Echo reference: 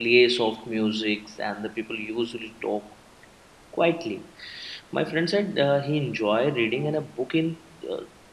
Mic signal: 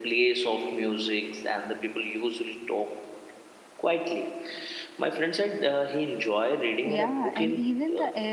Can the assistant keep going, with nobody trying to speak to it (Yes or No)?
No